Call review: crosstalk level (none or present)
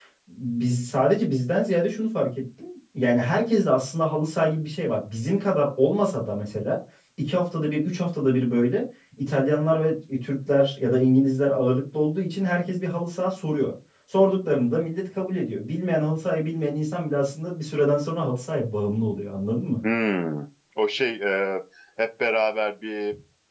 none